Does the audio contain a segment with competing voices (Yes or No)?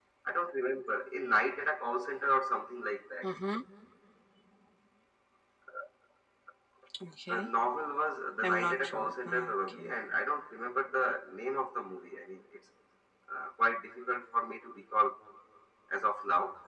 Yes